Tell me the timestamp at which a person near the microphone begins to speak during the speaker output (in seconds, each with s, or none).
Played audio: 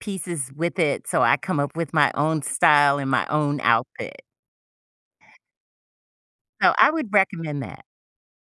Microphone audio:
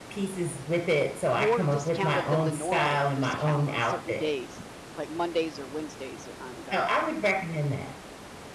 1.3 s